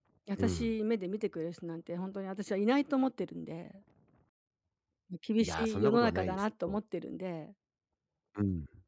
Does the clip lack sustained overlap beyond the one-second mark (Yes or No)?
No